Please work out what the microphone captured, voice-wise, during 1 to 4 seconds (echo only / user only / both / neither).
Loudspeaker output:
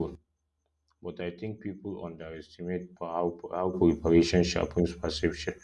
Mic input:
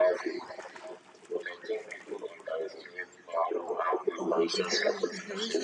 echo only